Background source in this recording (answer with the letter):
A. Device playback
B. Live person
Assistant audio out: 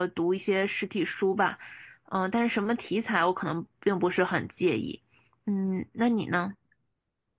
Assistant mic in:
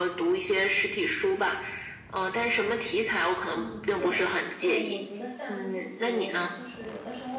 B